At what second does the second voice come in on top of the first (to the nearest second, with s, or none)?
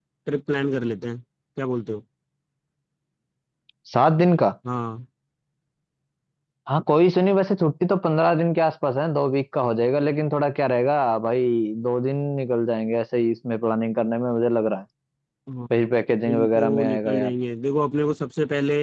16 s